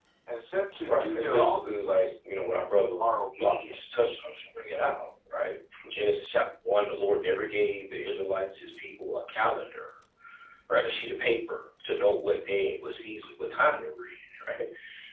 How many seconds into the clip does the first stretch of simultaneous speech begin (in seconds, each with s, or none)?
0.9 s